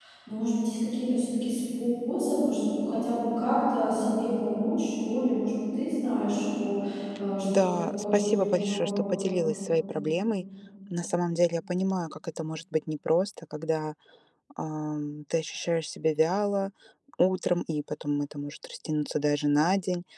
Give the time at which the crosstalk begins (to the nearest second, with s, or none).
8 s